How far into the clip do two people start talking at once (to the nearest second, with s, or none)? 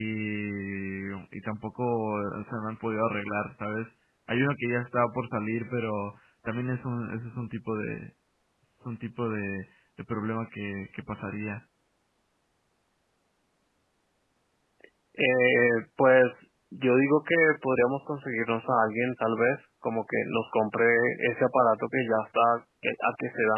none